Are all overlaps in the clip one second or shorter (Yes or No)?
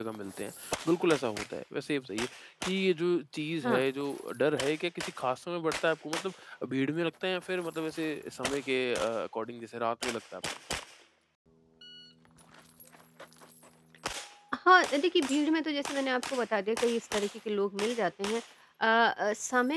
Yes